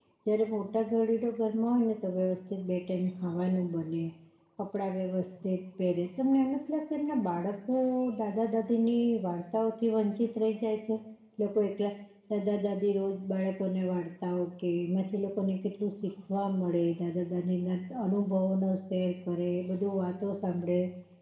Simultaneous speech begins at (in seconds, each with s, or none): none